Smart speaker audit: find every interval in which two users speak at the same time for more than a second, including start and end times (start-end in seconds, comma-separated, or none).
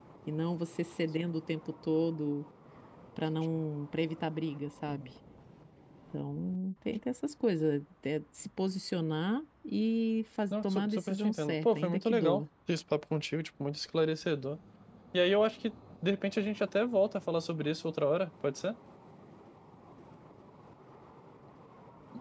10.6-12.4